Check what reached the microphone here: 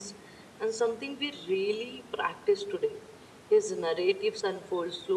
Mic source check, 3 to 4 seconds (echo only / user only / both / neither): echo only